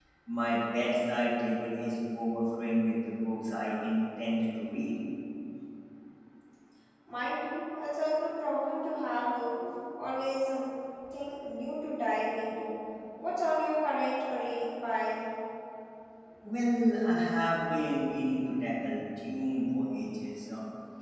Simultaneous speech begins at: none

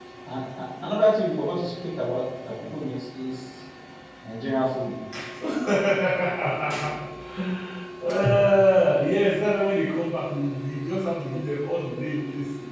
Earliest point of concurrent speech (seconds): none

